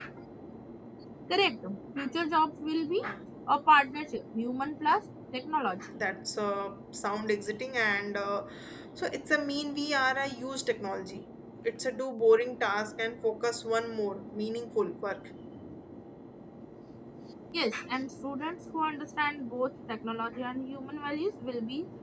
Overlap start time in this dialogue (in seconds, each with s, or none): none